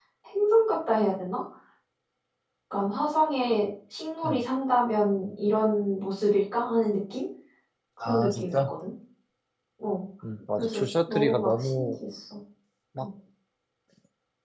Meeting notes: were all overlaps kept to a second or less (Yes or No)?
No